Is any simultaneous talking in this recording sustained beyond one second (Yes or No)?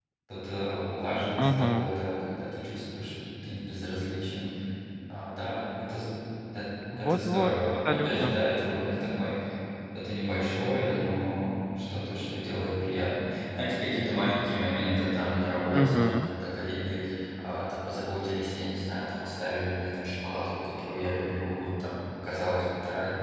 Yes